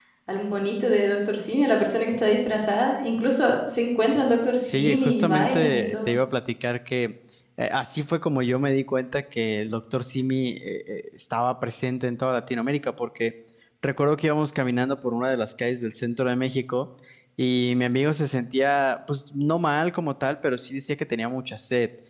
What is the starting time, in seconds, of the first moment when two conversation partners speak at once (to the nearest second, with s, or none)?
5 s